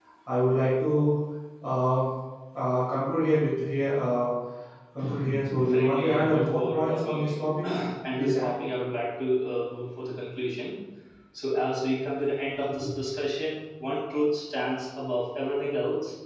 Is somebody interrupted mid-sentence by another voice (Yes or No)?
Yes